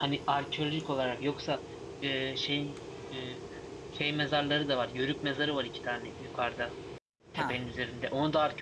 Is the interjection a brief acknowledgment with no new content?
Yes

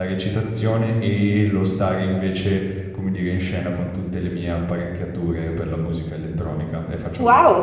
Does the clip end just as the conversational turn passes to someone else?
Yes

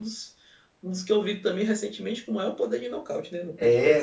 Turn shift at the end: Yes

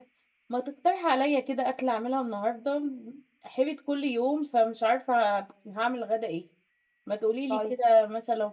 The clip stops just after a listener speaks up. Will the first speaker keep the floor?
Yes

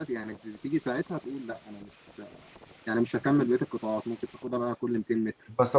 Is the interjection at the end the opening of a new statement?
Yes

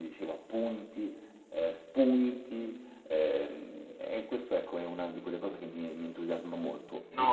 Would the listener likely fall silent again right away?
No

